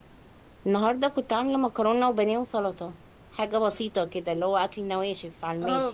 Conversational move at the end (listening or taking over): taking over